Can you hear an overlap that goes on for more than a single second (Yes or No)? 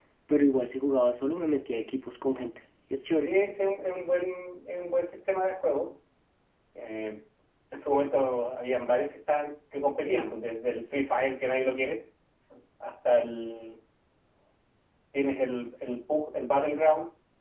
No